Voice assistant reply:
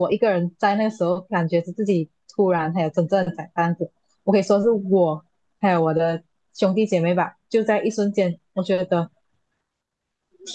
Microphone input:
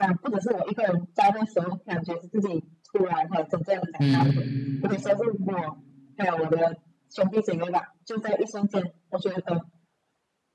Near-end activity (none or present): present